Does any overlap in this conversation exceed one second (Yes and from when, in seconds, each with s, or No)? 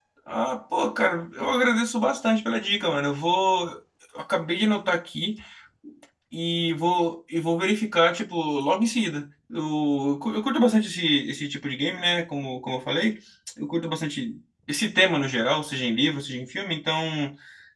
No